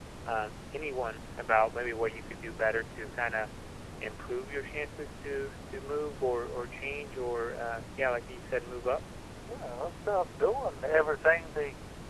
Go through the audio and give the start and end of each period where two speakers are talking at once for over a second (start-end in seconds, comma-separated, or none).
none